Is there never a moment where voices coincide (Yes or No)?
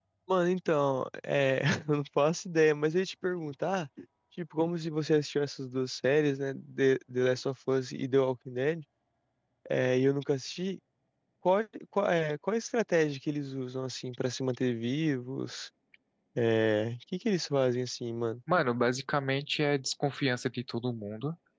Yes